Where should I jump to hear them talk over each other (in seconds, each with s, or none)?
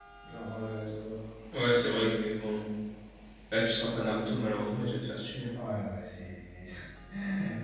none